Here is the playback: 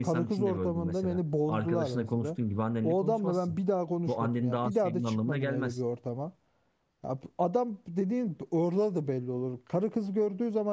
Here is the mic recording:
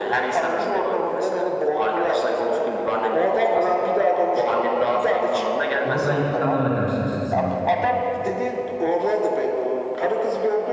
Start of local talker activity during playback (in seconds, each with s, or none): 5.8 s